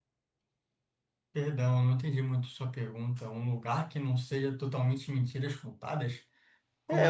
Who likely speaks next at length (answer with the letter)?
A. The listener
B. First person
A